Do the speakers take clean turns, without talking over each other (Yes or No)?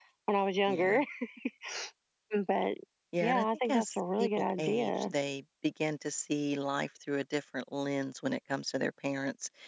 No